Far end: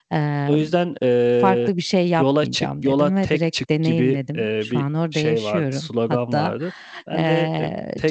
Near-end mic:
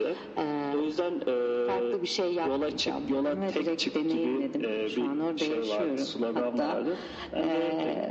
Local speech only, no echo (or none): none